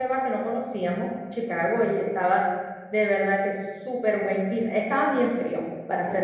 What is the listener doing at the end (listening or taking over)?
listening